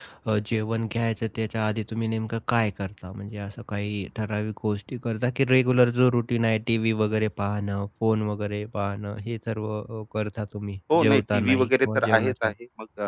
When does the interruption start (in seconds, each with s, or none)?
10.9 s